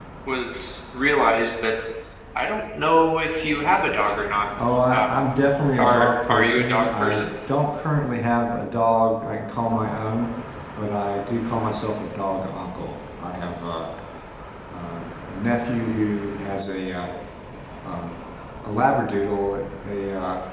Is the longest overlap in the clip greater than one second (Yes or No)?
Yes